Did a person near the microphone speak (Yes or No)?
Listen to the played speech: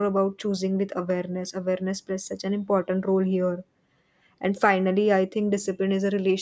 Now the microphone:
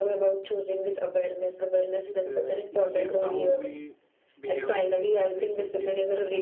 Yes